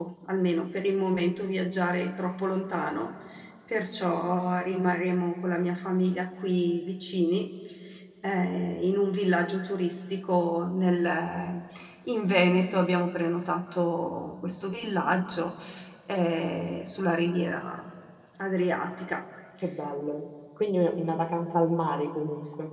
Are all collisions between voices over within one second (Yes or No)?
Yes